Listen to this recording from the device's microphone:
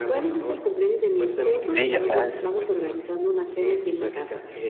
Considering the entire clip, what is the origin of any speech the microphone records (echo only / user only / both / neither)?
both